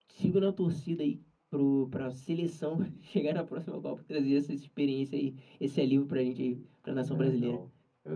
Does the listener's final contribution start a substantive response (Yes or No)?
Yes